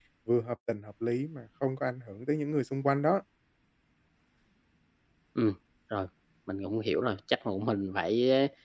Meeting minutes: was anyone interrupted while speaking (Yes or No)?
No